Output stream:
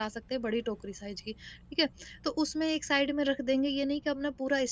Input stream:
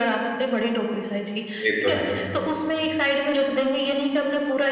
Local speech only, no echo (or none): ये तो है।